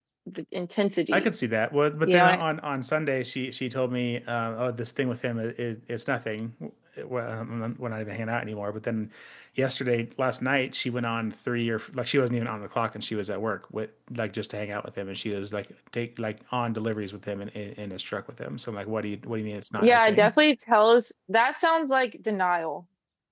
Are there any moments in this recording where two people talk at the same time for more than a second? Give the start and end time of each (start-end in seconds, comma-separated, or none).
none